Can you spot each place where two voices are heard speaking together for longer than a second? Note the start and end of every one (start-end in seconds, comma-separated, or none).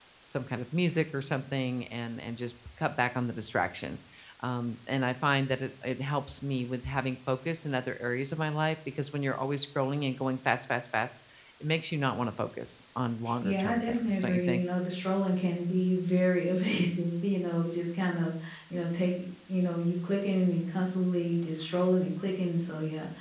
13.4-14.6